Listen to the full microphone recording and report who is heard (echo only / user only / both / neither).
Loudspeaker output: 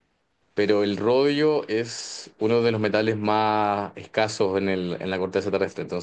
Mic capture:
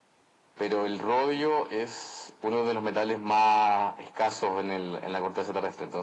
echo only